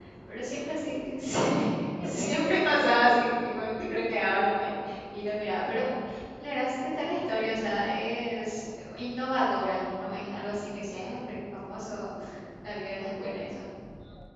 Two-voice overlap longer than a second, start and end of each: 2.0-3.3

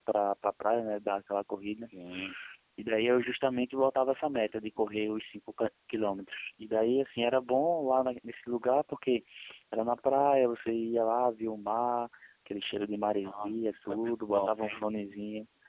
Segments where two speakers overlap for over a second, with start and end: 13.2-14.8

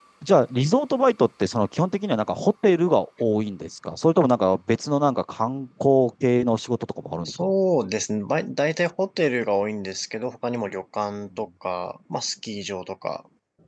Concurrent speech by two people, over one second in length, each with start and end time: none

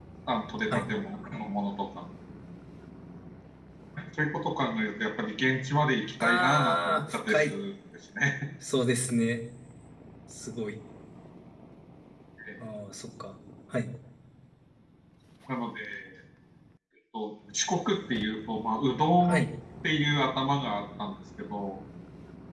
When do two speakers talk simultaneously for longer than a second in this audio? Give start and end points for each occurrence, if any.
6.2-7.5

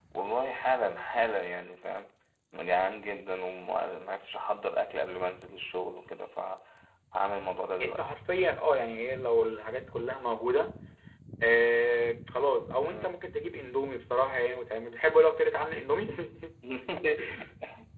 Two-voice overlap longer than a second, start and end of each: none

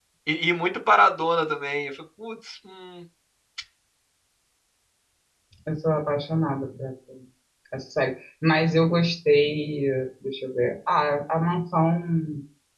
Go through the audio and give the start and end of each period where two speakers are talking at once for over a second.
none

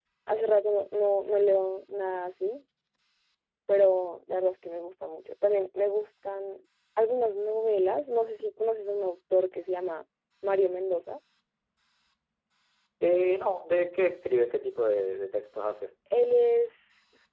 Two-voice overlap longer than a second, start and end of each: none

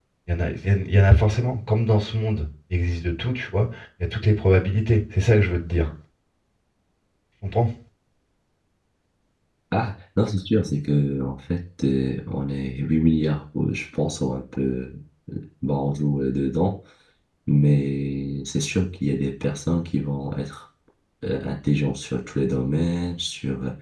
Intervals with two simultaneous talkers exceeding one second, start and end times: none

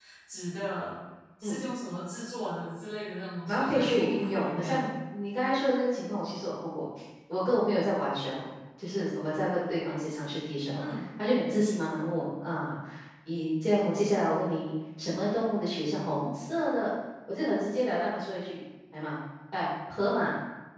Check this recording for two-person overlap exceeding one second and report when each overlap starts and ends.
3.5-4.8

